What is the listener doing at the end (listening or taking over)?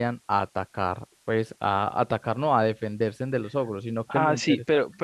taking over